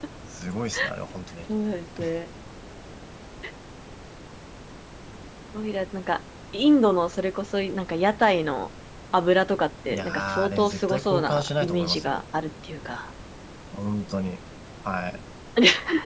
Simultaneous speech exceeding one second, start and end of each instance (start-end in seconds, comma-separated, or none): 9.9-12.2